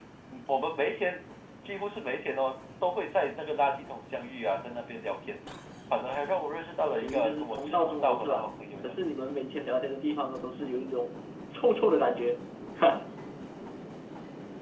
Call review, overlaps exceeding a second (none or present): present